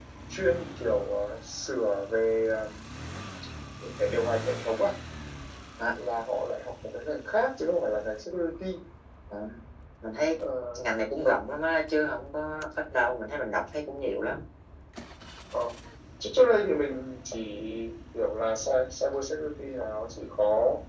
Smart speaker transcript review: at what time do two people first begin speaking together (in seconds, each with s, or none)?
none